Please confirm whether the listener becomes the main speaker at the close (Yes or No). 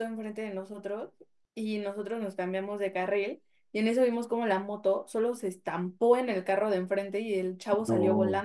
No